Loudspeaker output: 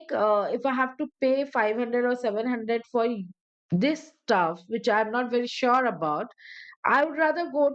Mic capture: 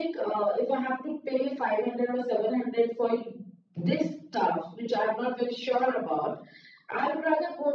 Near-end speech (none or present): none